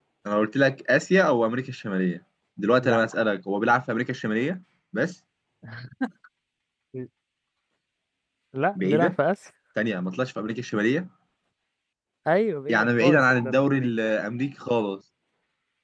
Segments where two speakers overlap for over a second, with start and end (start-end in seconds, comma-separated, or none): 12.7-13.9